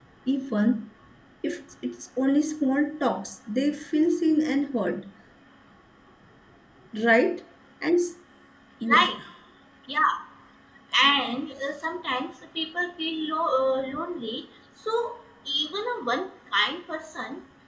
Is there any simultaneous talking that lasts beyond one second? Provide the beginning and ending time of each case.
none

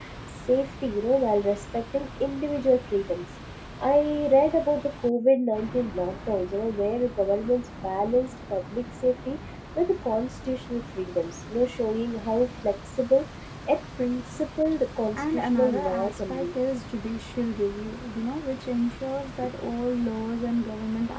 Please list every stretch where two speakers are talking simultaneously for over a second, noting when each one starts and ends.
15.2-16.4

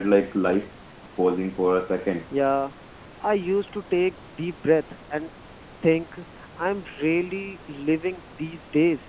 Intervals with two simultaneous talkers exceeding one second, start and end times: none

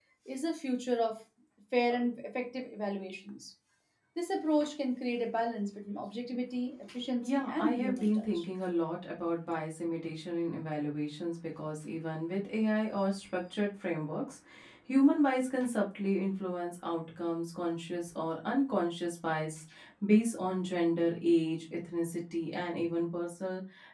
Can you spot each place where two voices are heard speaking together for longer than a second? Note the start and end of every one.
7.2-8.4

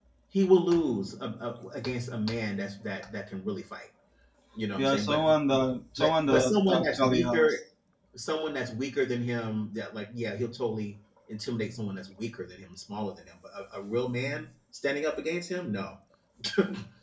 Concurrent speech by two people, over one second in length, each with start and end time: 6.0-7.5

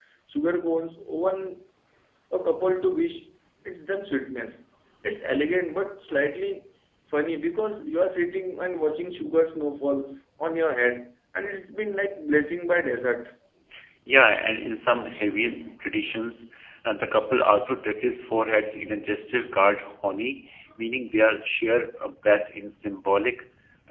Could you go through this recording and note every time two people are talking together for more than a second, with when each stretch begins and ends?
none

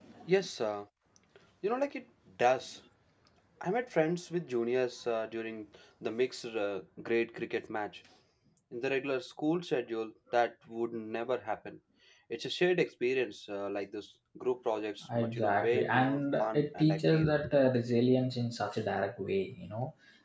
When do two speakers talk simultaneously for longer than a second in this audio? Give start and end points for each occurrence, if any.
15.2-17.3

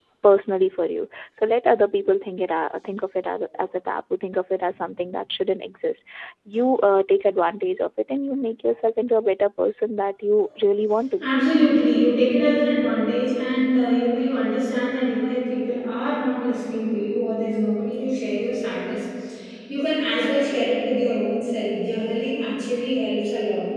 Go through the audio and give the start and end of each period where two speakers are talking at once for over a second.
none

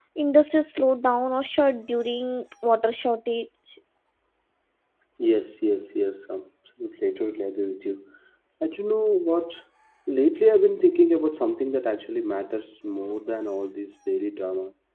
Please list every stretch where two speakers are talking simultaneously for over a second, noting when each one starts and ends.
none

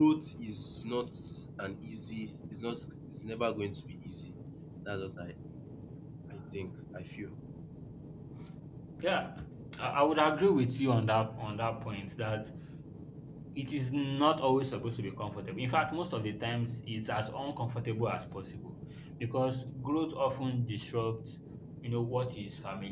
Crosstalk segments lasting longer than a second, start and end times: none

